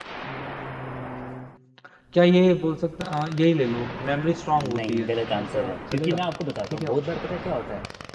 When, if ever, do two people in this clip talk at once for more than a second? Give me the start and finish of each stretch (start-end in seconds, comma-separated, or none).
4.6-6.2